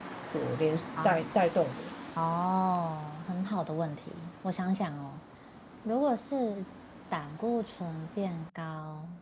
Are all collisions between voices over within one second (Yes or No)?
Yes